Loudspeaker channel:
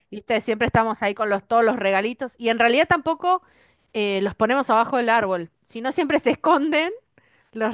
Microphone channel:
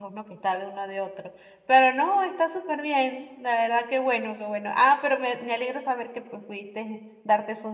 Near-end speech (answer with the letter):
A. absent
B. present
B